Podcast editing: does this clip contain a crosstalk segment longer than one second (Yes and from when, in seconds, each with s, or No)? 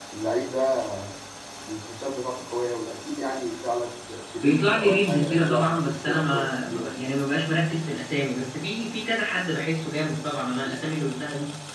Yes, from 4.4 s